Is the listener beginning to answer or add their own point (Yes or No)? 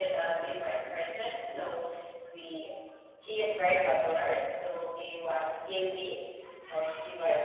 No